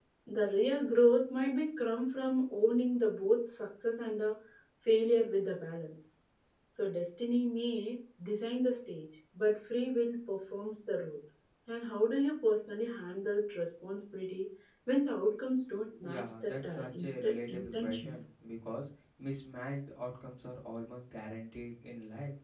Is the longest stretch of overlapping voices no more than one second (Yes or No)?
No